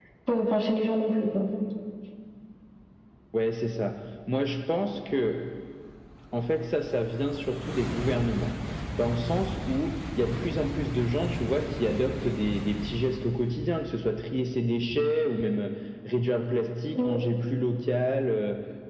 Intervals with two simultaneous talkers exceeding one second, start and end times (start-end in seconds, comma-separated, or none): none